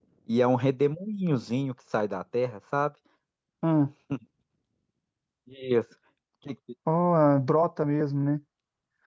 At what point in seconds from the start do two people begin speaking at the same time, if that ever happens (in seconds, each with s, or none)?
none